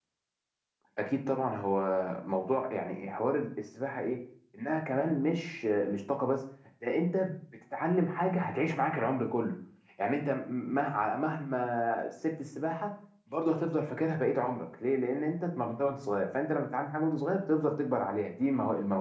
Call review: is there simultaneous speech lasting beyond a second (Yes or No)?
No